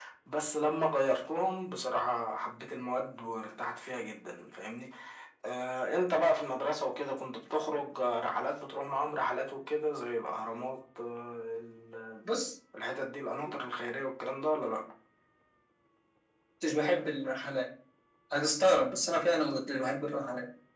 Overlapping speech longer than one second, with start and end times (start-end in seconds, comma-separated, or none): none